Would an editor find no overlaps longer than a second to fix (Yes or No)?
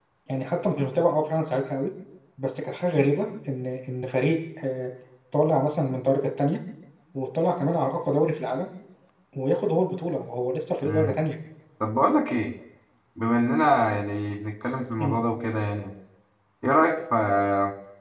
Yes